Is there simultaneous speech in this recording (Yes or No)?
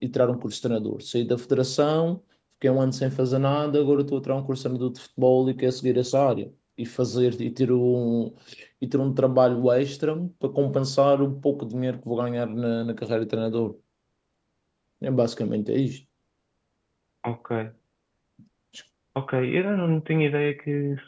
No